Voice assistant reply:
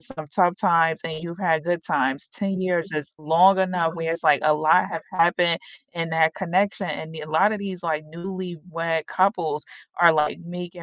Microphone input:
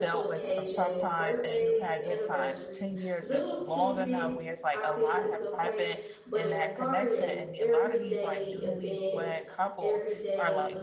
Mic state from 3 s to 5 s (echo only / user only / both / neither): both